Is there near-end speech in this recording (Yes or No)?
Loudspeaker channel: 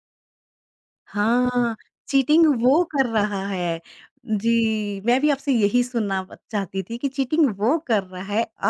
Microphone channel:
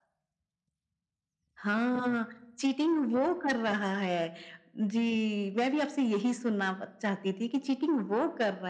No